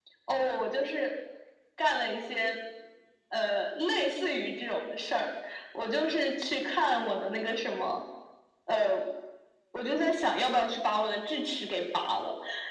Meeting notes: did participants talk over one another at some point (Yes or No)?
No